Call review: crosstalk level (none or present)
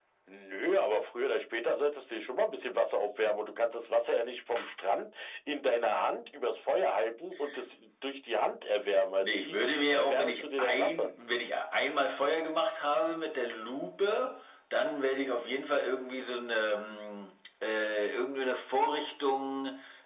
present